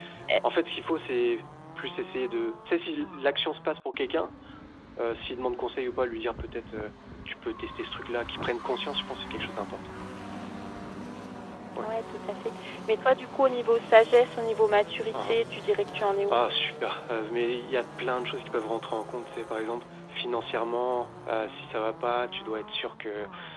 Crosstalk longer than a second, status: none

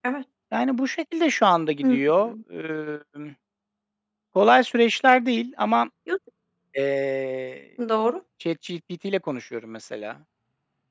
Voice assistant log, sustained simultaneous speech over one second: none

